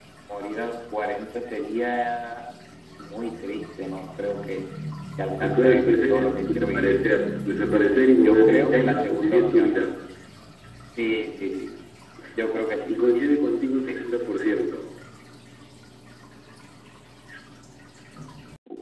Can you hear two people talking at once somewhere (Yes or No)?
Yes